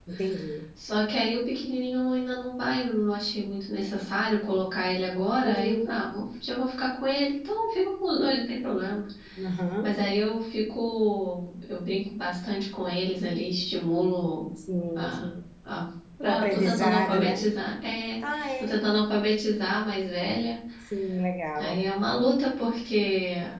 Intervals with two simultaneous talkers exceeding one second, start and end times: 16.2-17.5

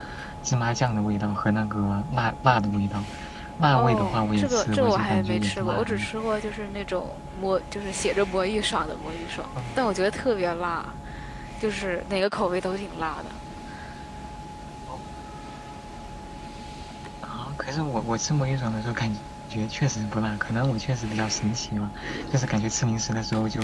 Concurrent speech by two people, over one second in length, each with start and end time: 3.8-6.1

